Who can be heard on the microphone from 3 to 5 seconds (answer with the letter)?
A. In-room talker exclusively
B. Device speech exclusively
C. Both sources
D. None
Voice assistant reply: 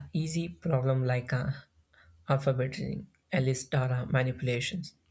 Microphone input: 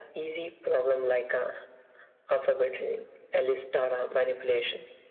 B